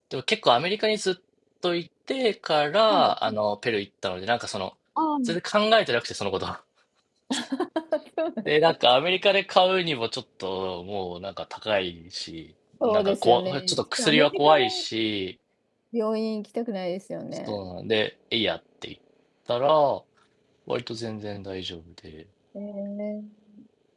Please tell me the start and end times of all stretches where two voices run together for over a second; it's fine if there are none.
12.8-14.6

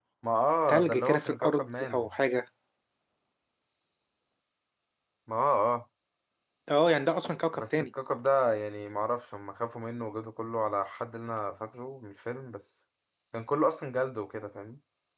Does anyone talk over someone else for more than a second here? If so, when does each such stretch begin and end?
0.7-2.1

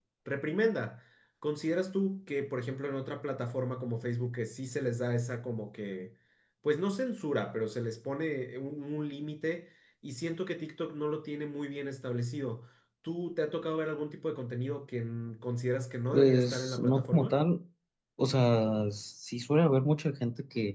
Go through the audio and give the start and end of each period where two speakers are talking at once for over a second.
16.1-17.4

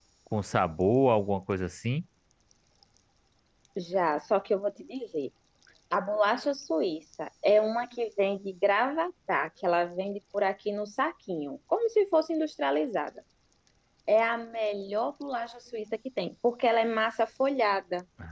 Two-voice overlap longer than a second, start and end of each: none

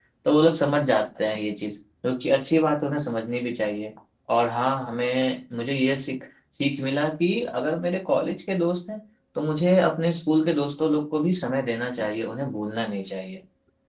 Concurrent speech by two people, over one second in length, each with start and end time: none

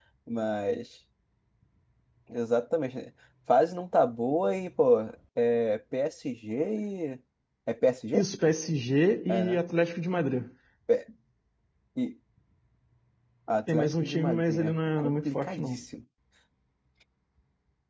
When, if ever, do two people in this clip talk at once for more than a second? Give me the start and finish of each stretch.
13.7-15.8

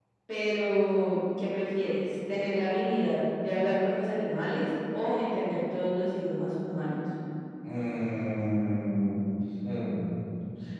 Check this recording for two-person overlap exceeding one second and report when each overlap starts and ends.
none

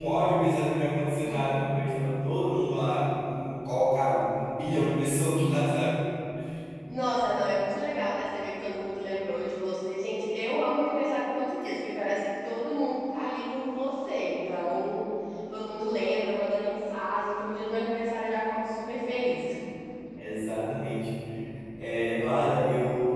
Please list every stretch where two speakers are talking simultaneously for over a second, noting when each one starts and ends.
none

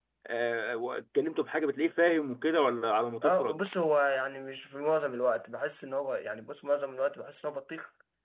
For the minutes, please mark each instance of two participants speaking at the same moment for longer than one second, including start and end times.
none

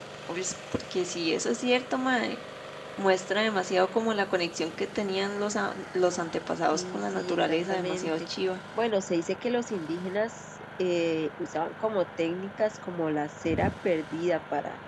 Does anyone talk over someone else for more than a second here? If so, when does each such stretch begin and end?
6.7-8.1

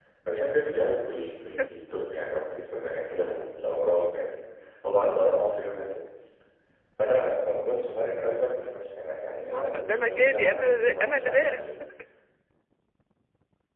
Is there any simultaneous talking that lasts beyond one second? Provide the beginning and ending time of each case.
9.3-11.7

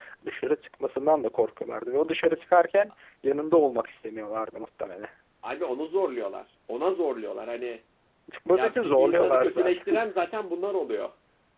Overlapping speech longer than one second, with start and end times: 8.5-10.0

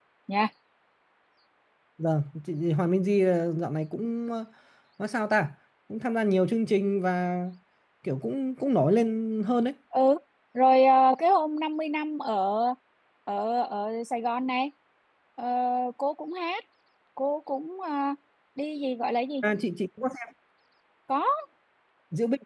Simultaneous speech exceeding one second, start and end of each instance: none

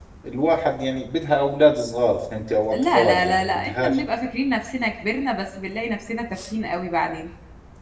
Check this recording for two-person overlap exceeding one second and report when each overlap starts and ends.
2.7-4.0

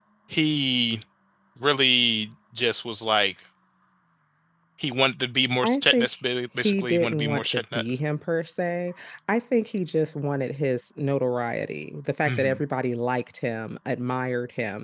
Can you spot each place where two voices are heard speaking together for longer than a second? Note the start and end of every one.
6.6-7.8

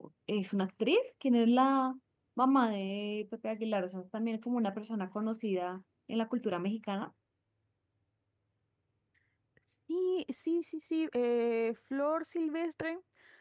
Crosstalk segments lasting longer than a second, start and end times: none

